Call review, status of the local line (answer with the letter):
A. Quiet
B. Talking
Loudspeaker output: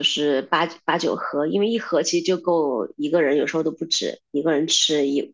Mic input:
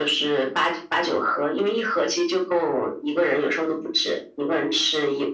A